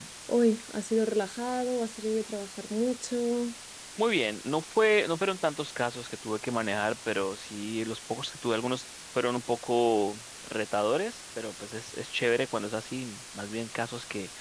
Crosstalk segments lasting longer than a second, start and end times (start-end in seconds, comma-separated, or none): none